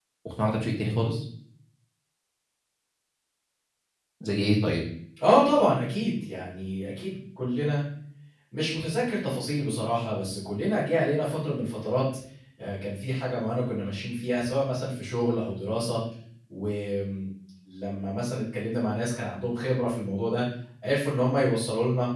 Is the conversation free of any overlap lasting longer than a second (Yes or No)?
Yes